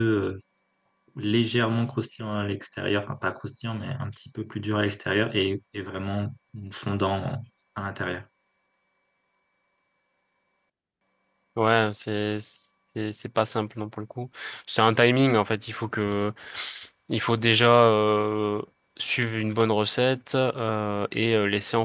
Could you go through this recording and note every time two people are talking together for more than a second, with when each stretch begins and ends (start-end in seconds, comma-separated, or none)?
none